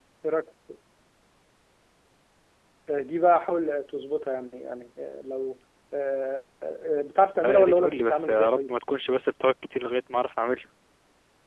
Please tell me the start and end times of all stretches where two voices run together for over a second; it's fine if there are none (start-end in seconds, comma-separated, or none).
7.4-8.7